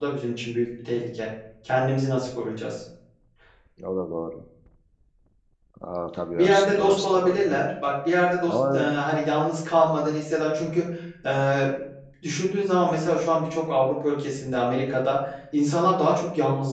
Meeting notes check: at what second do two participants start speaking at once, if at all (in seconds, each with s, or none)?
6.3 s